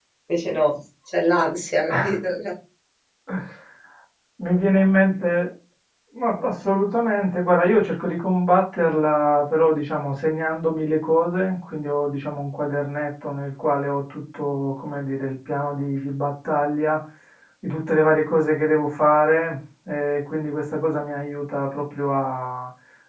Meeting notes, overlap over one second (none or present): none